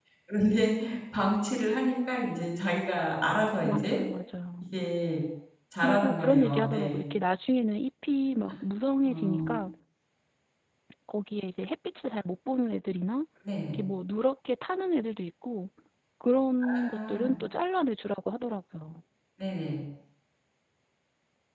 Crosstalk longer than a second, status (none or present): present